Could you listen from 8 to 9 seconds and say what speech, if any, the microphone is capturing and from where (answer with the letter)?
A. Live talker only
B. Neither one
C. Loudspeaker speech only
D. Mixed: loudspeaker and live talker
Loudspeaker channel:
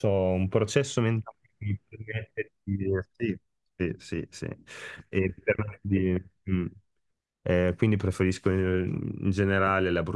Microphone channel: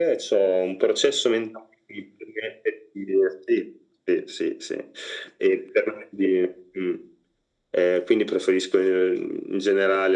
C